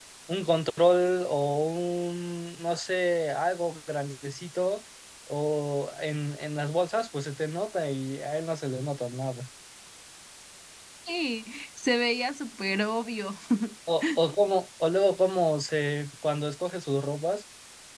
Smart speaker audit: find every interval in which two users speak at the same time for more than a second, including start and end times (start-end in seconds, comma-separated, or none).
none